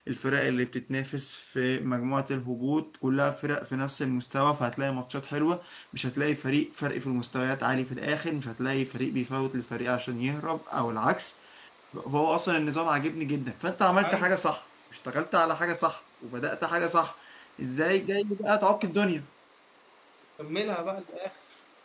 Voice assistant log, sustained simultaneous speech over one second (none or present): none